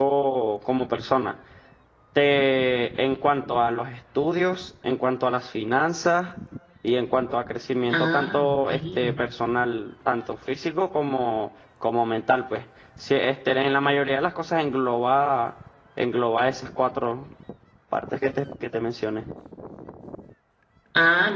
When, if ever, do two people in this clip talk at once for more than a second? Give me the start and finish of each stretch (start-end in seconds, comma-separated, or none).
7.9-9.1